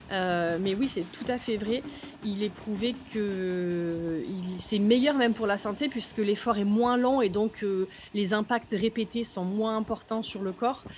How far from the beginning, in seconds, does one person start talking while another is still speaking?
none

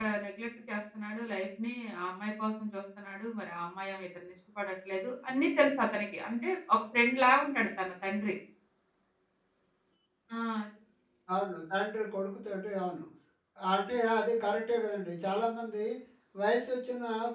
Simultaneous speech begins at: none

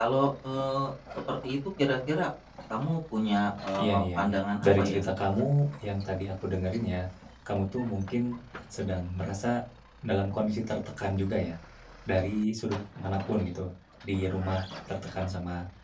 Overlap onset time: 3.8 s

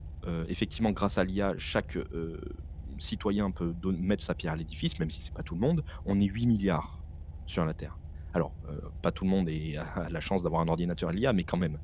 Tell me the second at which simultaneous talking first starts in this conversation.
none

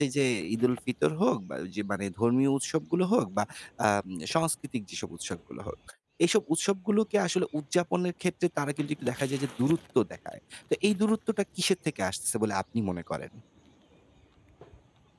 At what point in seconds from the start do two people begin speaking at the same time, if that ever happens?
none

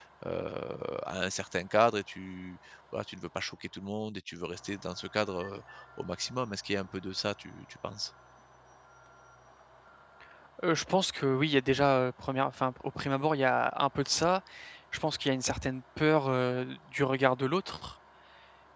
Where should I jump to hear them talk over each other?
none

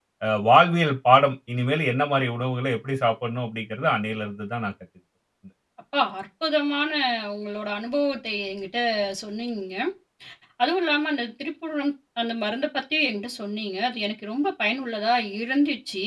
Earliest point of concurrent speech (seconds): none

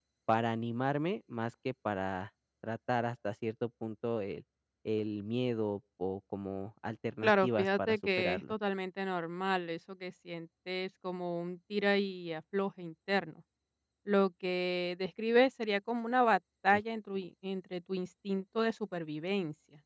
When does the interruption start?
7.2 s

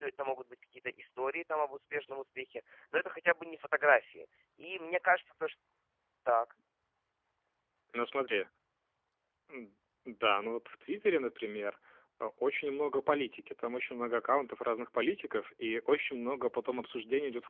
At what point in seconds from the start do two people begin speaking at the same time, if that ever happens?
none

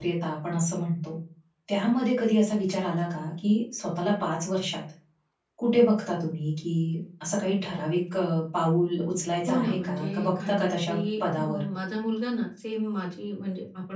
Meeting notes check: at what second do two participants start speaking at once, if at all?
9.5 s

